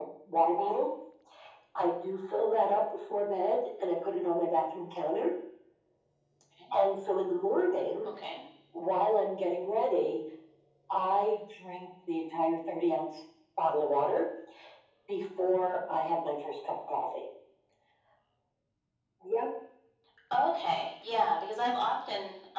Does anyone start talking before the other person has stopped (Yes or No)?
No